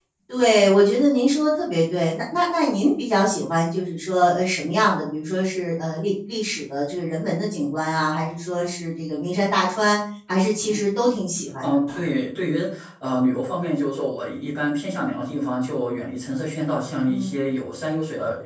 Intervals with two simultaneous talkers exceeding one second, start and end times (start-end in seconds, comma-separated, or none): none